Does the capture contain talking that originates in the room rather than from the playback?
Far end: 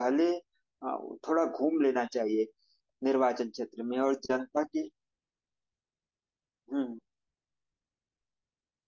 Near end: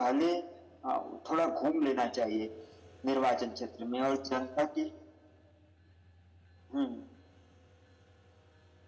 No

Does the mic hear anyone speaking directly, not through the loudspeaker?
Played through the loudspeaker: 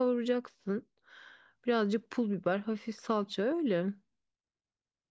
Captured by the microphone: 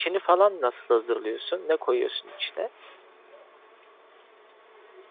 Yes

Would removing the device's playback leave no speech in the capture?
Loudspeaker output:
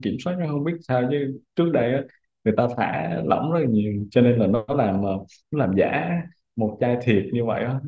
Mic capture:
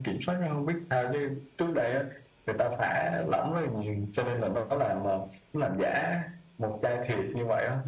Yes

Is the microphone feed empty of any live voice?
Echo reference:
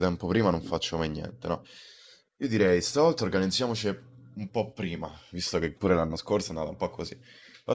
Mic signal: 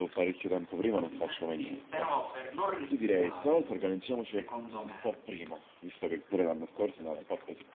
No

